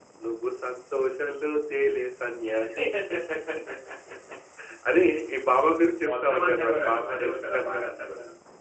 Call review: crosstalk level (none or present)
present